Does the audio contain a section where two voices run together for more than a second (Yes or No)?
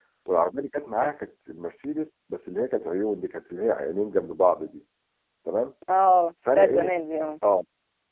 No